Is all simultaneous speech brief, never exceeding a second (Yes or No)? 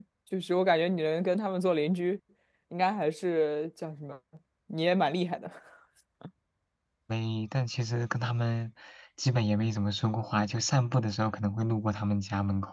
Yes